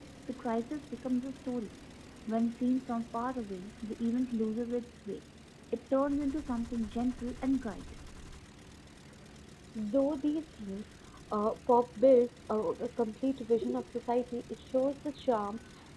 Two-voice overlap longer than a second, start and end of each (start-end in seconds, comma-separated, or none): none